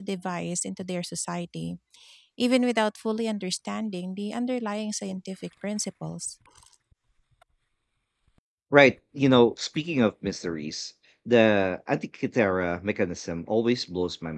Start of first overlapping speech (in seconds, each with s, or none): none